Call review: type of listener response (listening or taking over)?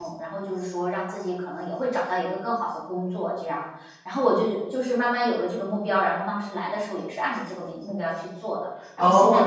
taking over